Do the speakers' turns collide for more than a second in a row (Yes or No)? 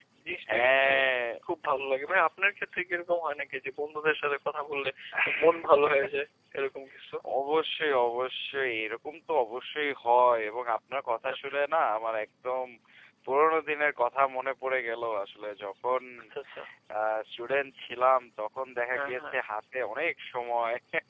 No